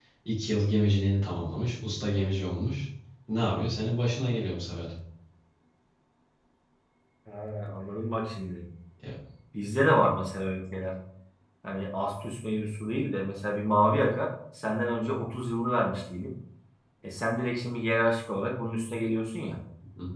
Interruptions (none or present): none